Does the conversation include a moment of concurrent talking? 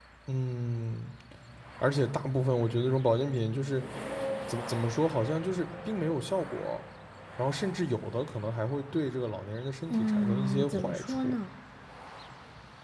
Yes, from 9.9 s

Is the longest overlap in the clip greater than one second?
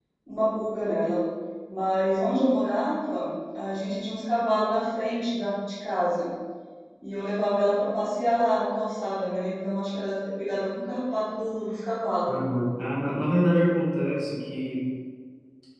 No

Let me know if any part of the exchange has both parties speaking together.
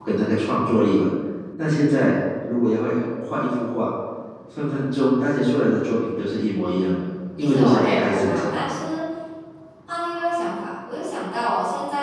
Yes, from 7.4 s

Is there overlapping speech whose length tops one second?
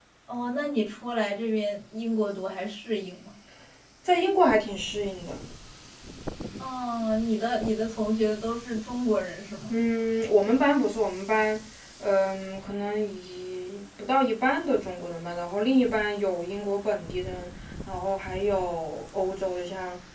No

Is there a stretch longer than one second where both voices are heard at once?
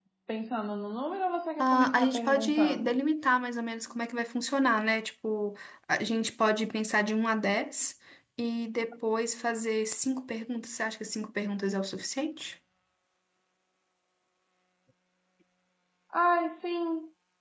Yes, from 1.6 s

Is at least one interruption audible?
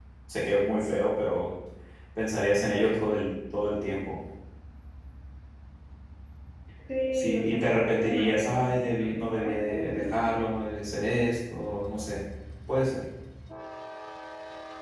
Yes, from 7.1 s

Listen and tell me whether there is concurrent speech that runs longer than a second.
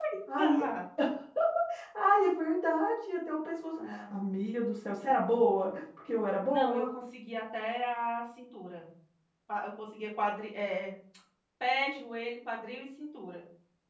No

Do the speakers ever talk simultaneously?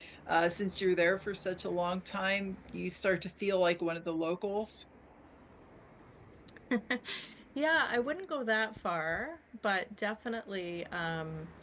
No

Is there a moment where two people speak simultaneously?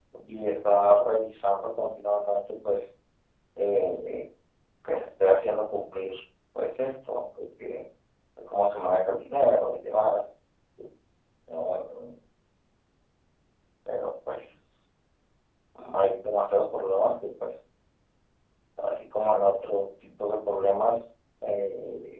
No

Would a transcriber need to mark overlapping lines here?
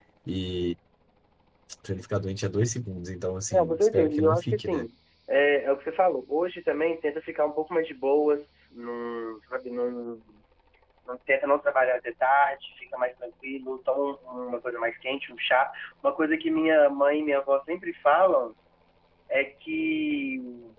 Yes, from 3.5 s

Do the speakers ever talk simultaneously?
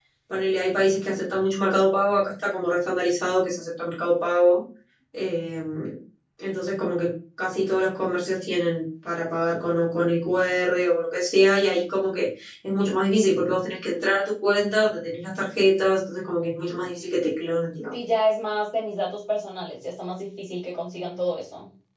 No

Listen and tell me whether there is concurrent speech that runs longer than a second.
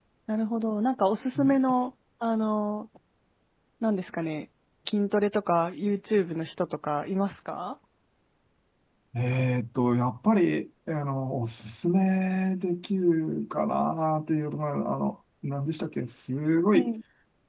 No

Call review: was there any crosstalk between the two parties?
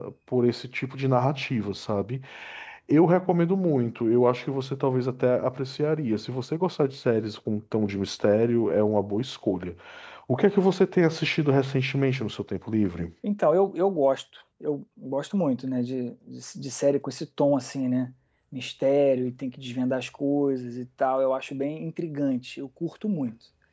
No

